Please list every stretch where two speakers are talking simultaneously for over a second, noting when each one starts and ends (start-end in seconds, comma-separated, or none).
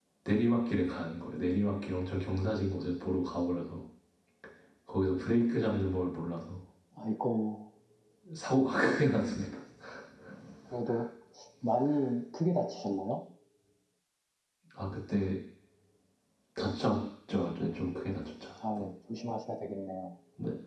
none